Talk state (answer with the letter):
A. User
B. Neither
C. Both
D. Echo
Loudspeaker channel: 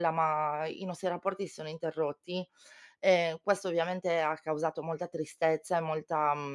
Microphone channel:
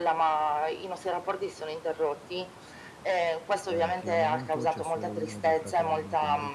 C